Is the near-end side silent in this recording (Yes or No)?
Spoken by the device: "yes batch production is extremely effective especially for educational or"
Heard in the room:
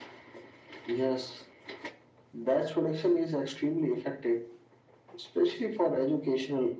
Yes